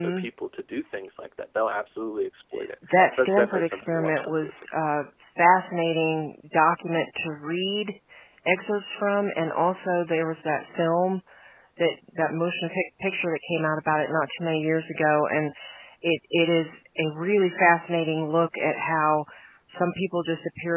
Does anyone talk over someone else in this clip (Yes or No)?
Yes